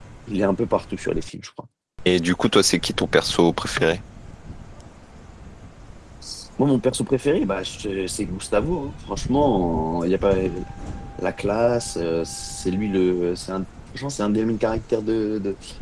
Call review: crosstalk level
none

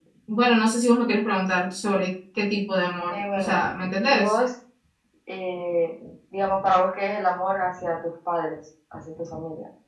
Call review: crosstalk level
present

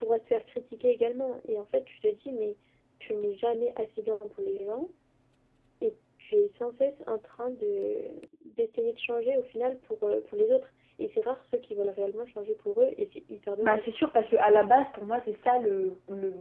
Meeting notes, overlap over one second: none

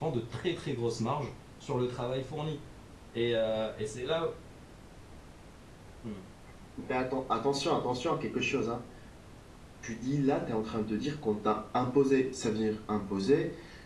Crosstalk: none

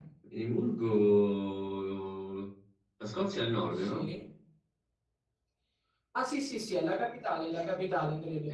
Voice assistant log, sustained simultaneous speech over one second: none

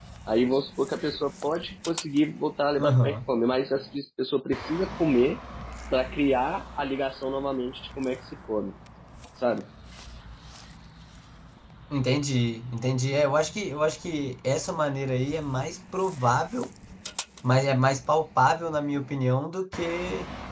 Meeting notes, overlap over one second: none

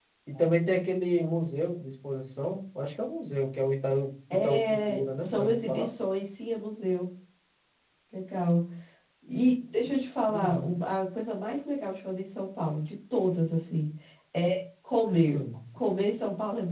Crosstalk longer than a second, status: present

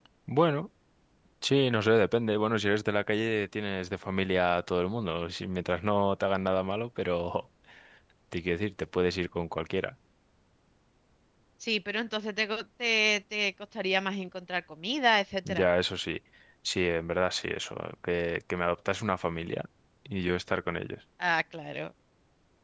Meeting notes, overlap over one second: none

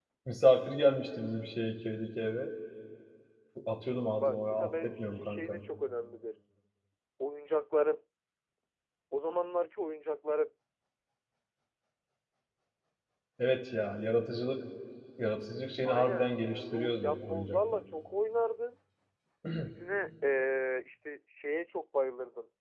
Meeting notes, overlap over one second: present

